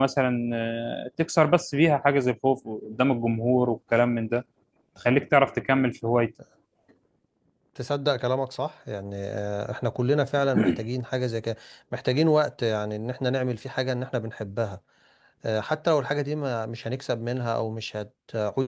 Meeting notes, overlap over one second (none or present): none